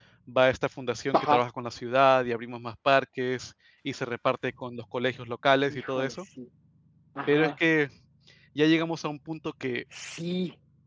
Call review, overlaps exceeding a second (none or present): none